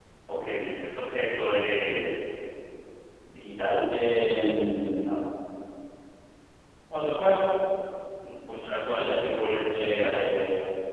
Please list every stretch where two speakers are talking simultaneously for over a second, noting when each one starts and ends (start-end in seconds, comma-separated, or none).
8.8-10.1